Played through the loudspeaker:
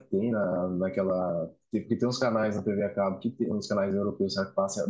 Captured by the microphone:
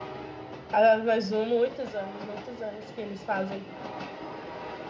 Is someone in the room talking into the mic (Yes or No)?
Yes